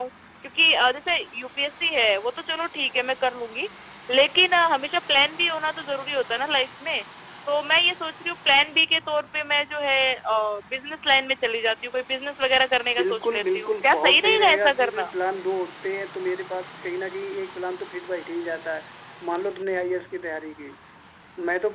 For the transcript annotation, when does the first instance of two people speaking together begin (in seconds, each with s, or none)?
13.0 s